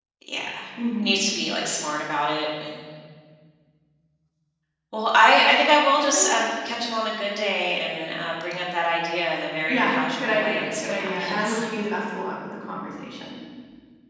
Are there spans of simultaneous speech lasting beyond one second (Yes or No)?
Yes